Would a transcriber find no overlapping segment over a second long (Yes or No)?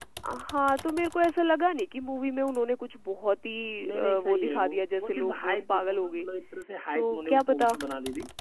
No